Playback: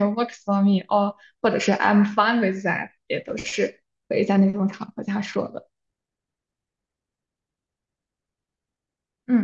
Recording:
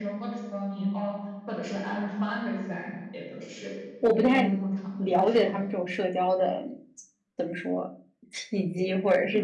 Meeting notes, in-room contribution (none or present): present